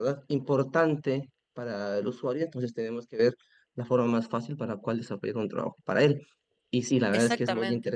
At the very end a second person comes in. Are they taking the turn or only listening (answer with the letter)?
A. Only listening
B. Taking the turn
A